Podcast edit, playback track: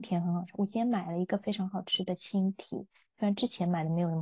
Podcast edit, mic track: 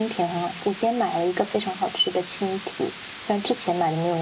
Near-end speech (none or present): none